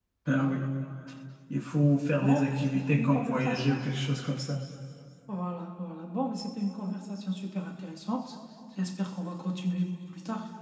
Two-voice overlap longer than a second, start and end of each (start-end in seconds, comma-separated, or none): 2.2-3.8